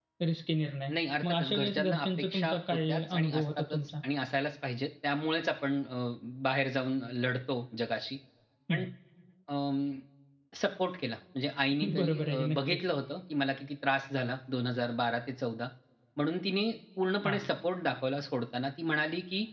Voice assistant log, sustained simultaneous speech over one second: present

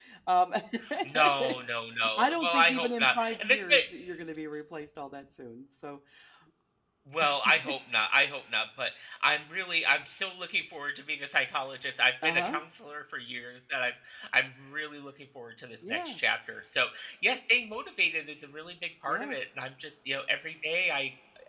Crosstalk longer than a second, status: present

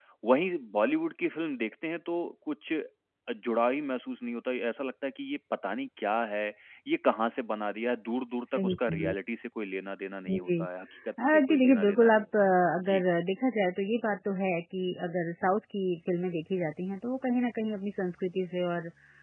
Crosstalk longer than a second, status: present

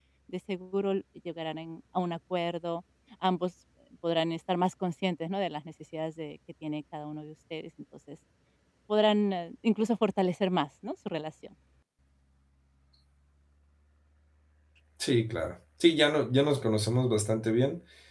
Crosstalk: none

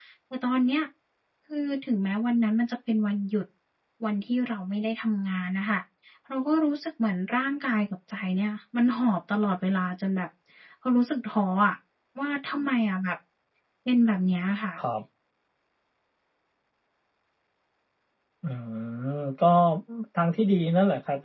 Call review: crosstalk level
none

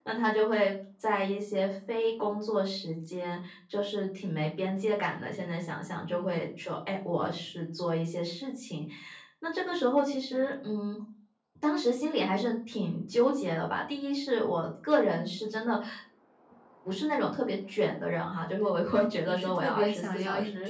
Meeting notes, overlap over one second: present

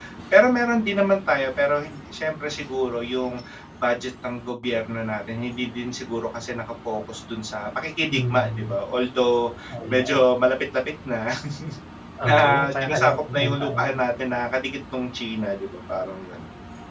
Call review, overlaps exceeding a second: present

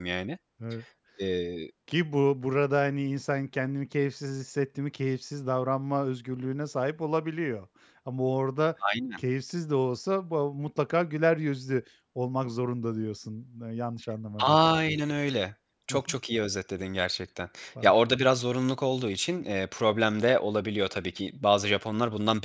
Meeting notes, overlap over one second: none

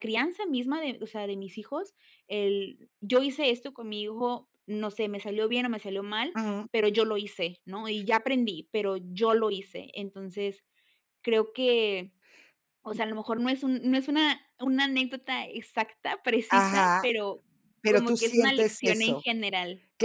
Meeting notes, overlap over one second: present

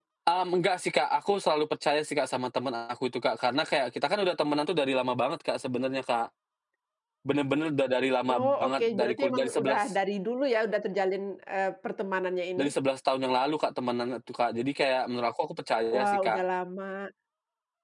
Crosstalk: present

